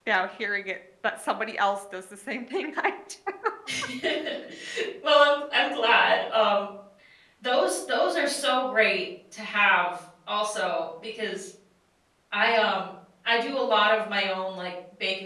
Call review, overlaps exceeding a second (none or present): none